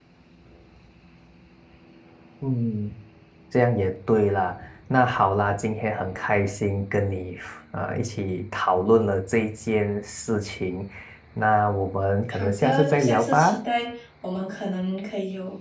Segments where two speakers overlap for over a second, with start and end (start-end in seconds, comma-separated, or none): 12.3-13.6